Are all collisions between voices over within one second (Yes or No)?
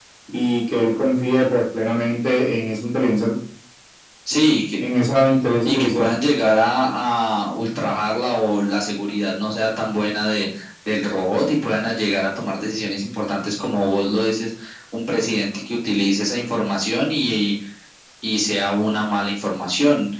Yes